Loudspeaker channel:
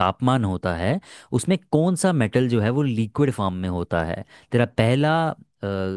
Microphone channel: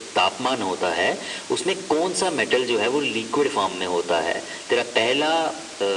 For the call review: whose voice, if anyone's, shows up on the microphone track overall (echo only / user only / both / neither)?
echo only